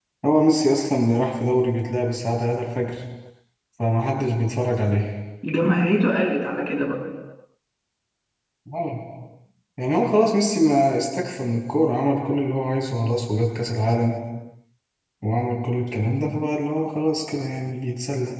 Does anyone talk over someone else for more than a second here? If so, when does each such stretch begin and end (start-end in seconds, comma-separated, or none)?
none